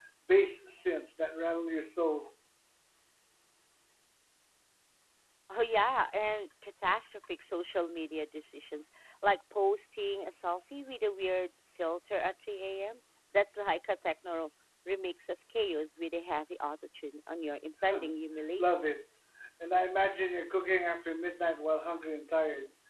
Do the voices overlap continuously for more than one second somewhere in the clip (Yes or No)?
No